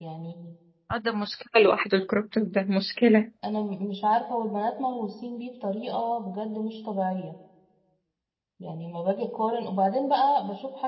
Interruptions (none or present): none